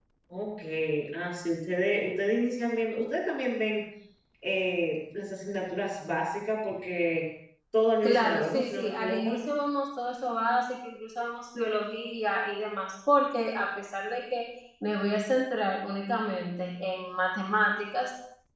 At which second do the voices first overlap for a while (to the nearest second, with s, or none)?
8 s